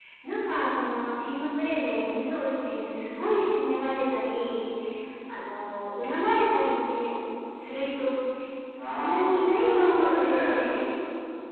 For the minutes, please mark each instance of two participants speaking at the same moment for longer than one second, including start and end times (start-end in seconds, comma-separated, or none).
8.8-10.7